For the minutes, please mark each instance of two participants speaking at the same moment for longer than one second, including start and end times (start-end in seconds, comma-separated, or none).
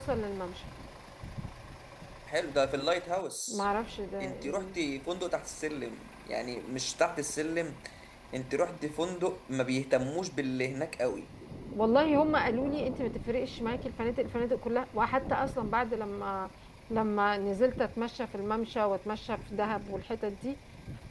none